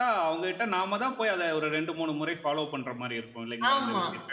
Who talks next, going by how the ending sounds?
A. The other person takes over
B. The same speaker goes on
A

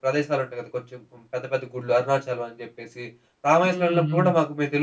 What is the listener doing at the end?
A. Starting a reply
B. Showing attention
B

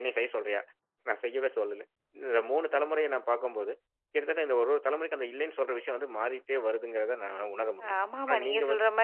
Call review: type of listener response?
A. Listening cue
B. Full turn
B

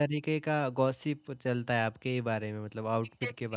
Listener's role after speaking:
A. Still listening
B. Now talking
B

